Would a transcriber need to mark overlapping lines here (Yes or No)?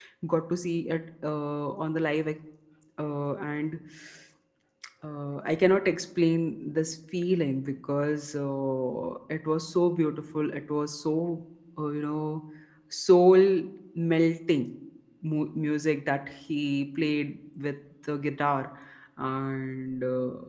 No